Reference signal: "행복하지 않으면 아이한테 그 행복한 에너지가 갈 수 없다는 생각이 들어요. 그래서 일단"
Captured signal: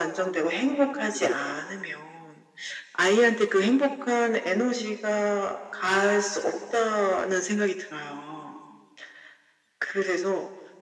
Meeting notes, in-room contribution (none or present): none